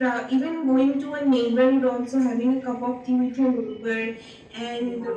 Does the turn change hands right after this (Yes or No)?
No